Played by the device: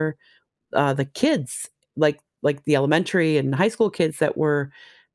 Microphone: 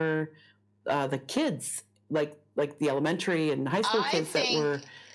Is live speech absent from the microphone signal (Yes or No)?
No